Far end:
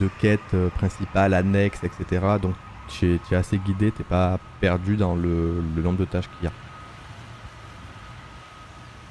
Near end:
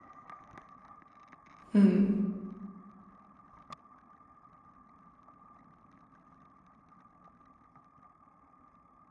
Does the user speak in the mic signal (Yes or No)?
Yes